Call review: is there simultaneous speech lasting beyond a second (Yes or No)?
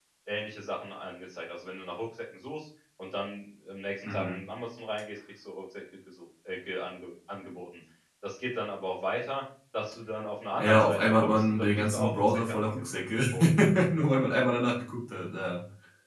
Yes